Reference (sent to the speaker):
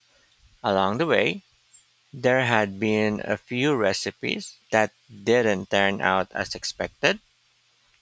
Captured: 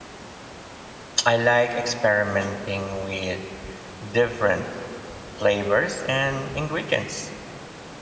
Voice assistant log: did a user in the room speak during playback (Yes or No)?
Yes